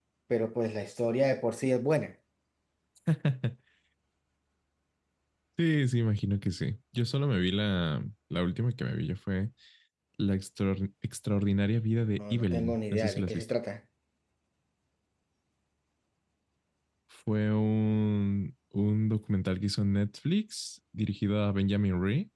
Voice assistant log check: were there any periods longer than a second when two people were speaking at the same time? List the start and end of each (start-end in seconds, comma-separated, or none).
12.2-13.4